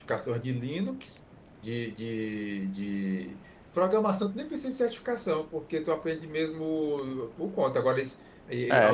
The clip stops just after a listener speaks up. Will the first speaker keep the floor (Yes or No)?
No